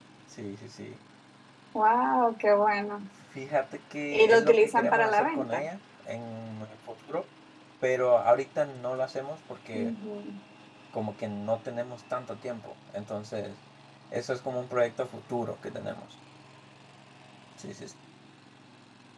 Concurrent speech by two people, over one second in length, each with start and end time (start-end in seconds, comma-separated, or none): 4.1-5.6